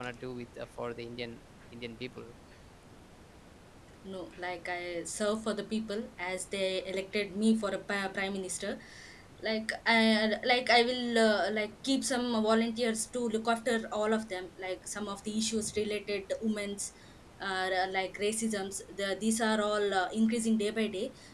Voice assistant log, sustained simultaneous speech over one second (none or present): none